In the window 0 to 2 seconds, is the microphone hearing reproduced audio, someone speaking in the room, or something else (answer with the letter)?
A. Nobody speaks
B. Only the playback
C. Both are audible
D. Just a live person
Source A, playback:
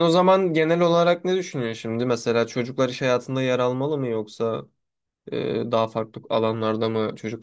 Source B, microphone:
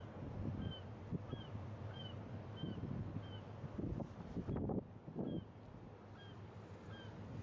A